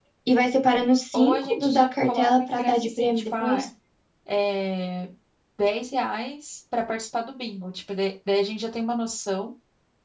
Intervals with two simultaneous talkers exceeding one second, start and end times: 1.1-3.6

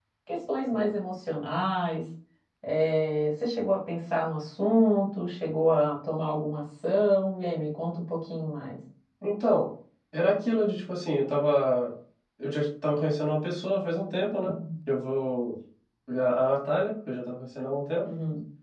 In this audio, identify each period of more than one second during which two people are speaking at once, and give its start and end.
none

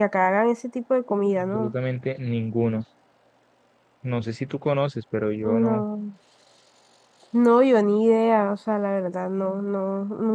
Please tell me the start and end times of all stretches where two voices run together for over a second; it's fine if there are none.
none

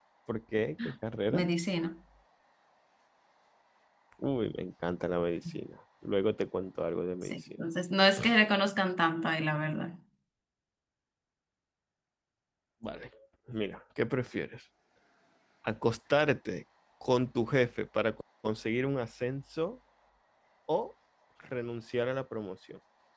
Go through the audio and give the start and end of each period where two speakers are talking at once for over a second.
none

